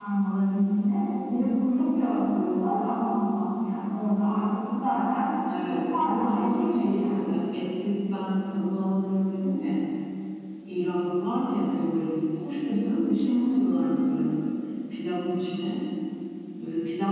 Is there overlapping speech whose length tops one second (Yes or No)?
Yes